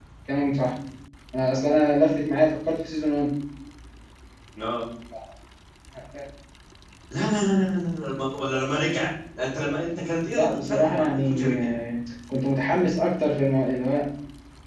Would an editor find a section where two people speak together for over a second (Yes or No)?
Yes